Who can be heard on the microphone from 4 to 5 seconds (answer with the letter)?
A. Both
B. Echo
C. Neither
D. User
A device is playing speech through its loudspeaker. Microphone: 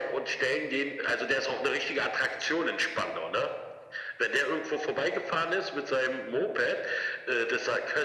B